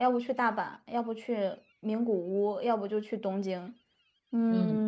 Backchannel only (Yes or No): No